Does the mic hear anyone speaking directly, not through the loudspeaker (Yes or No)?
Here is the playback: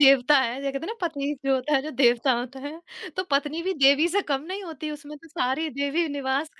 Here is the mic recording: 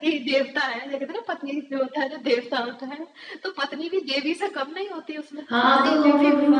Yes